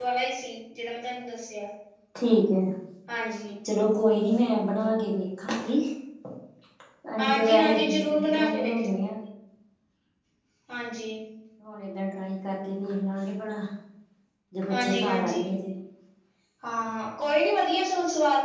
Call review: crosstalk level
present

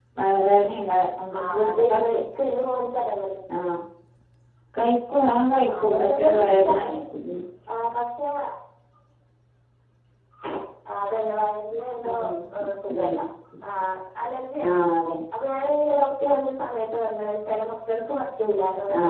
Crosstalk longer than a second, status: present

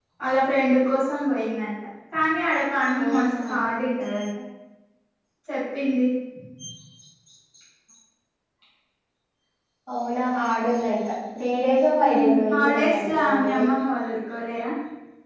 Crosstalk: present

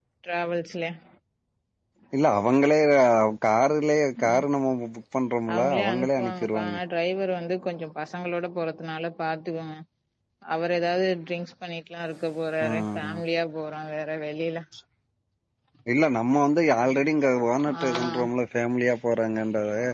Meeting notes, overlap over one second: present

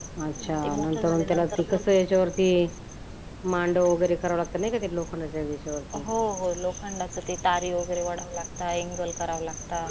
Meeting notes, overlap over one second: present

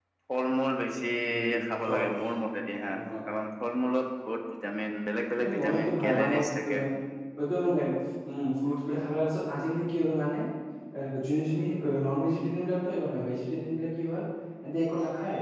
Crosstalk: present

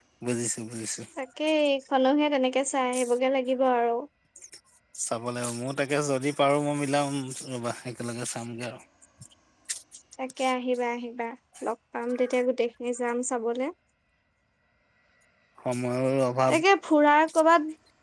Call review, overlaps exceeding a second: none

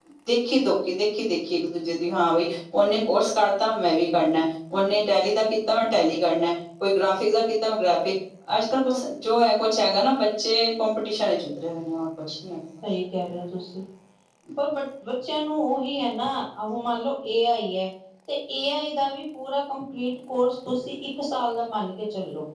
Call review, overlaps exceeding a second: none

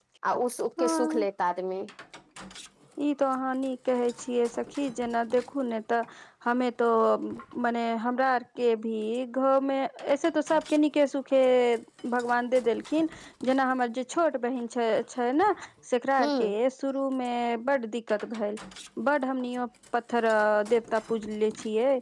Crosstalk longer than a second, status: none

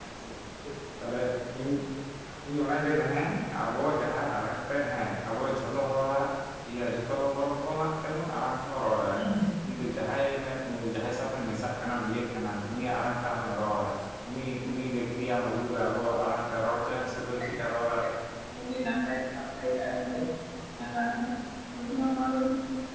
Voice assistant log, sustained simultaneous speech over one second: none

